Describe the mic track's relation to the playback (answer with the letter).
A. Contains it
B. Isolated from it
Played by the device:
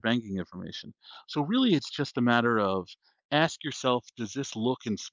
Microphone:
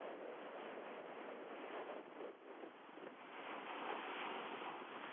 B